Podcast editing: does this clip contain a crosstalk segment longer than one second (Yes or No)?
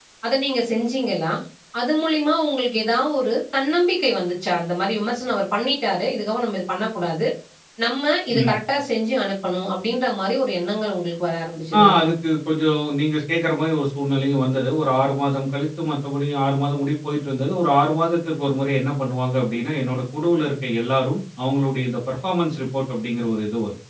No